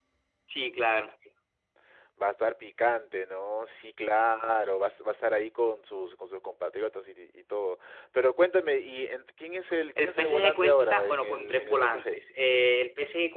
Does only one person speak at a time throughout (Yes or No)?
No